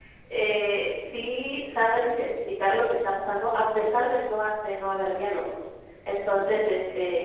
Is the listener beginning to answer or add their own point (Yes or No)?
No